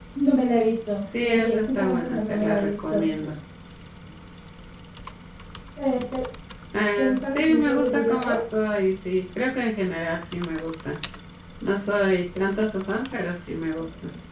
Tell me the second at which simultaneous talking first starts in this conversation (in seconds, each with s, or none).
1.2 s